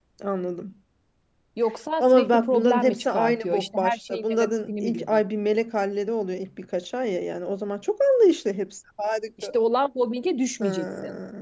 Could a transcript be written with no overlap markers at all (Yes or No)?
No